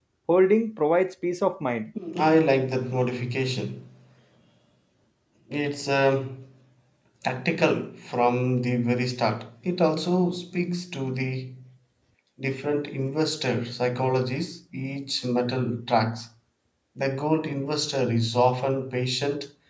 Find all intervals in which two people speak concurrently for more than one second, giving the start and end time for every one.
none

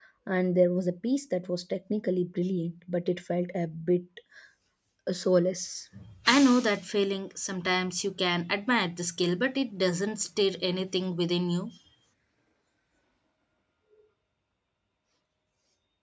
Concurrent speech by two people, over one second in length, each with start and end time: none

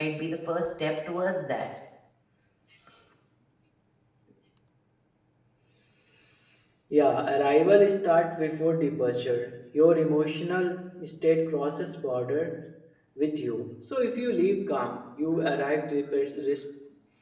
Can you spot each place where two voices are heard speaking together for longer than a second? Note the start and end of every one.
none

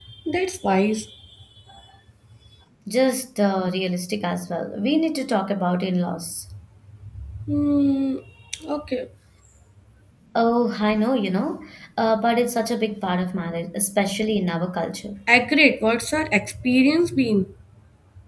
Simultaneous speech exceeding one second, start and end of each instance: none

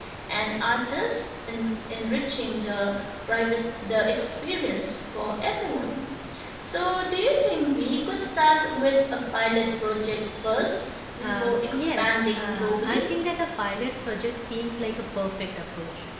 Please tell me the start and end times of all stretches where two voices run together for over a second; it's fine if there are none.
11.2-13.0

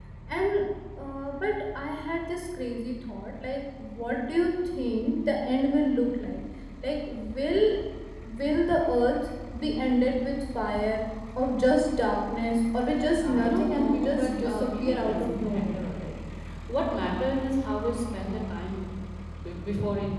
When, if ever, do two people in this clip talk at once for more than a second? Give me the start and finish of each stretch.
13.2-15.9

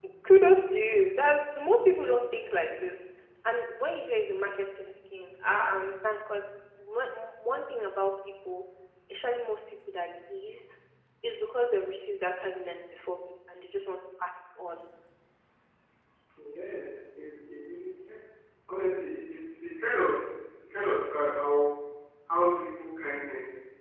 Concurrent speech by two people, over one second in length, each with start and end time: none

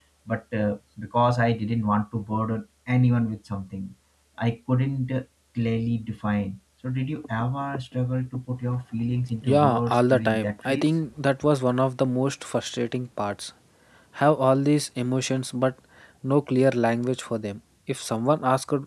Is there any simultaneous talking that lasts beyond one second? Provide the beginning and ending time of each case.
9.4-10.9

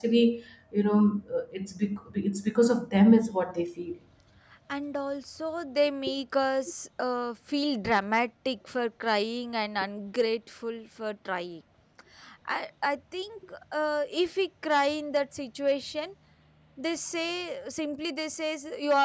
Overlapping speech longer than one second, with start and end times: none

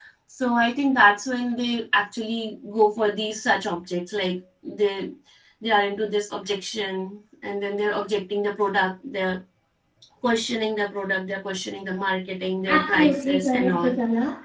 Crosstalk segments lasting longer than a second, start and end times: 12.7-13.9

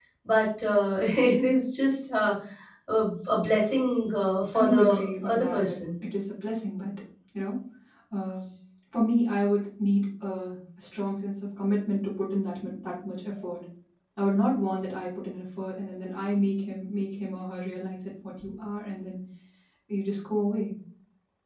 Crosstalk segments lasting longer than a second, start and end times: 4.5-5.8

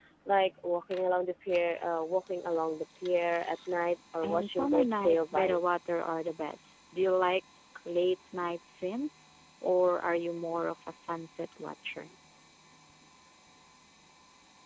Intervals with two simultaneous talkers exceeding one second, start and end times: 4.2-5.6

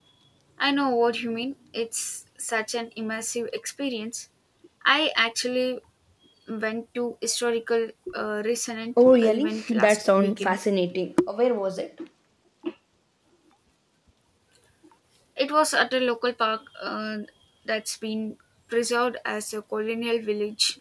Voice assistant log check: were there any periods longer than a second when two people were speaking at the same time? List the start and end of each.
9.1-10.6

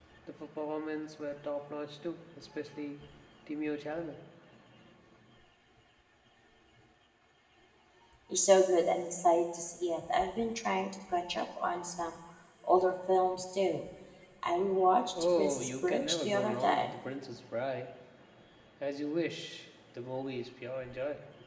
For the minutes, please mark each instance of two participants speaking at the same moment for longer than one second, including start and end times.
15.2-16.9

